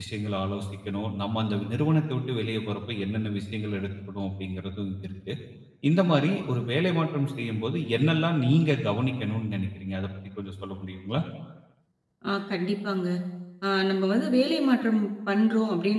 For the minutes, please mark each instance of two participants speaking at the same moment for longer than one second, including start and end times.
none

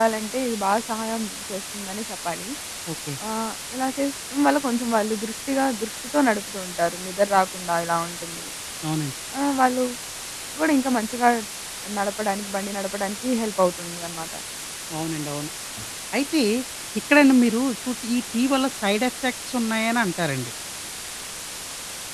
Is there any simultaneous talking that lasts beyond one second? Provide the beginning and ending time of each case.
none

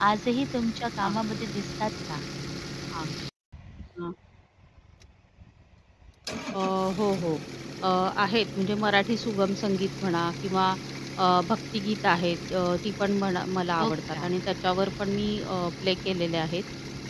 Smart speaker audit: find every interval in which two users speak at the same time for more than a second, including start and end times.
none

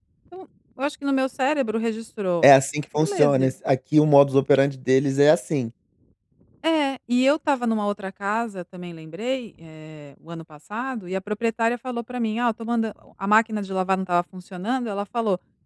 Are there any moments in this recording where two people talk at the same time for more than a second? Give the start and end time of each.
none

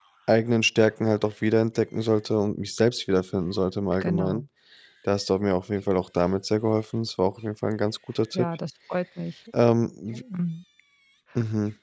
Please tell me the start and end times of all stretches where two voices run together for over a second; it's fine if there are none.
none

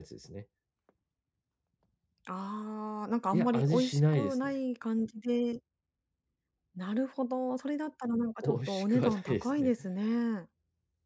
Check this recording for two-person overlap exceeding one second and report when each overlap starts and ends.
3.3-4.5, 8.4-9.7

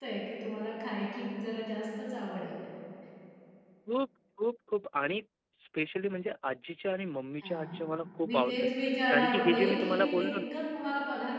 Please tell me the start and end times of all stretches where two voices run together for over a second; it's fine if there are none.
9.1-10.3

